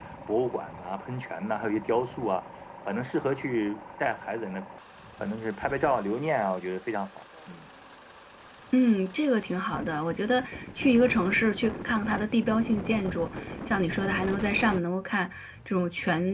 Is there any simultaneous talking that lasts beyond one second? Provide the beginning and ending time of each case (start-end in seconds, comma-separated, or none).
none